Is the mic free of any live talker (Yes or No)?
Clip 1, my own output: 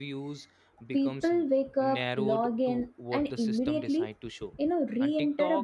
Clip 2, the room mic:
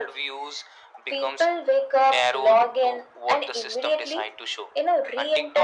Yes